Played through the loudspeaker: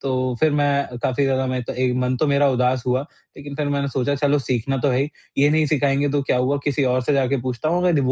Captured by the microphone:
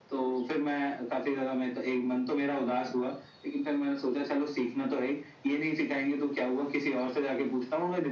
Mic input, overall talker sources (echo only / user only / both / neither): echo only